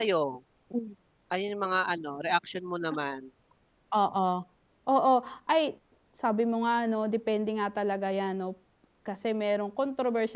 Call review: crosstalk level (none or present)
none